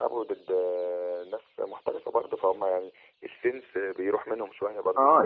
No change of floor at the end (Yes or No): No